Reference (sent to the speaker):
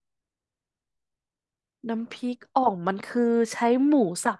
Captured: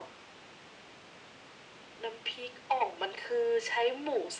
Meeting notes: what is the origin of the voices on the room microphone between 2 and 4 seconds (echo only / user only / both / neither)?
echo only